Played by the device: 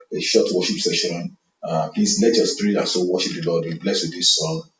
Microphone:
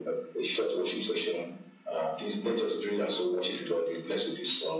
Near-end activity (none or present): none